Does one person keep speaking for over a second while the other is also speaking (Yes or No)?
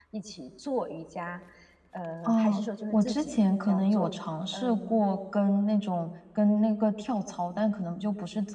Yes